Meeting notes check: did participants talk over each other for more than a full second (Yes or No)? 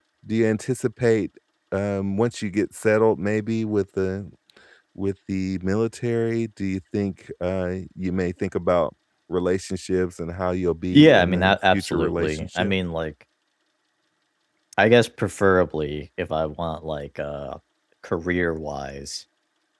Yes